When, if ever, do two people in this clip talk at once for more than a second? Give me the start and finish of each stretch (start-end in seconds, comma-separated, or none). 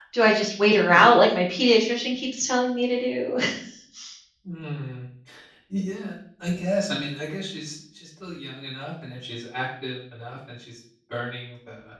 none